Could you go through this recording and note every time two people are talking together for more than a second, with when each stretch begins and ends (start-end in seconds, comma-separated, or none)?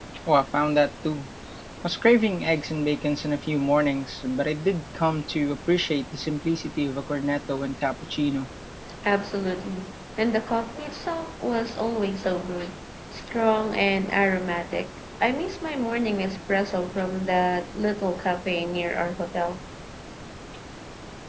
none